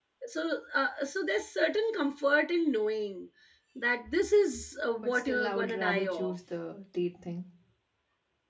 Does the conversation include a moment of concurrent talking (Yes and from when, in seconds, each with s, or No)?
Yes, from 5.0 s